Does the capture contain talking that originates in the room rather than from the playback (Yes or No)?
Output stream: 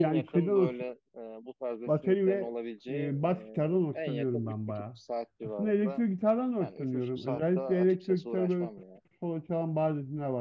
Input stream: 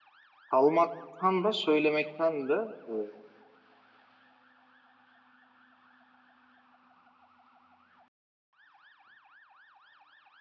Yes